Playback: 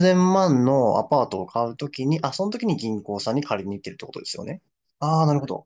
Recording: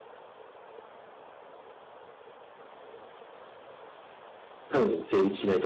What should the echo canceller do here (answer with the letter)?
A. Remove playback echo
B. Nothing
B